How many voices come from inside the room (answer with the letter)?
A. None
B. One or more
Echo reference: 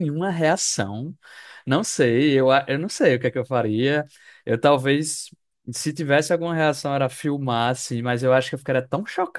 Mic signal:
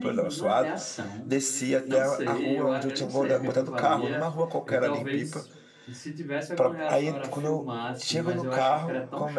B